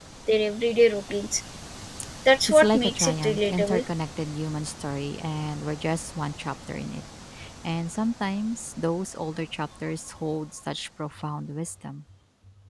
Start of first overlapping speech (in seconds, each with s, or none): 2.5 s